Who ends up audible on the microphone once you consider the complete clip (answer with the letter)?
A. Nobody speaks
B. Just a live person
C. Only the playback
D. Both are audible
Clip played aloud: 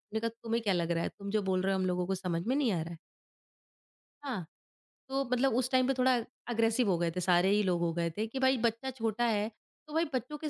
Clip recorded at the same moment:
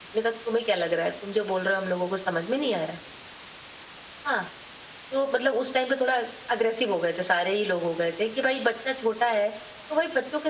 C